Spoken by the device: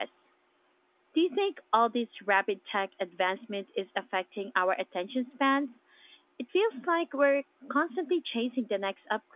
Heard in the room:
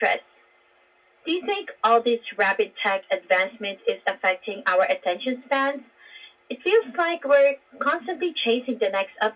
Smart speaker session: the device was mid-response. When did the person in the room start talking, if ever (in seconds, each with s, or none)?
none